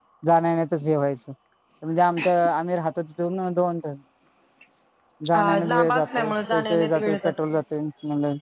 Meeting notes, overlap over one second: present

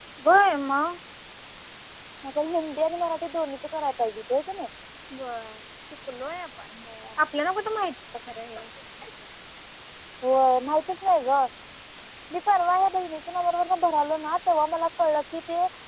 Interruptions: none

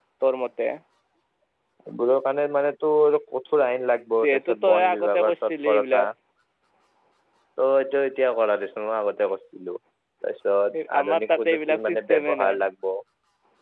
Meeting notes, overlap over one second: present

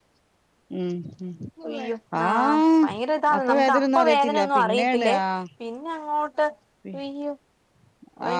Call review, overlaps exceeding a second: present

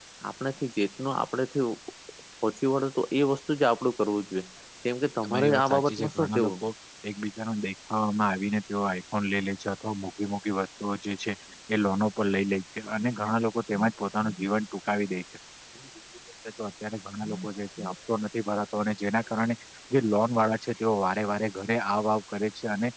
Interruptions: present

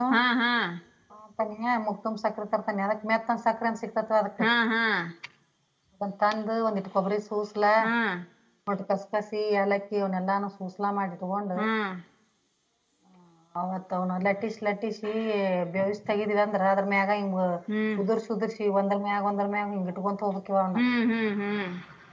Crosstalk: none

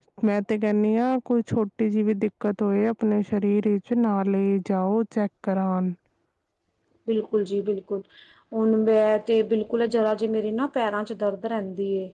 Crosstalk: none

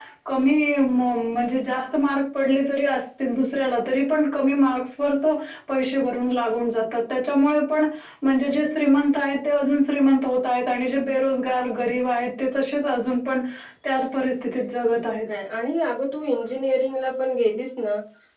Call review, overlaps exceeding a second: none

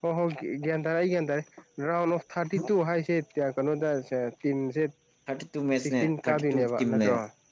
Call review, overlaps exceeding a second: present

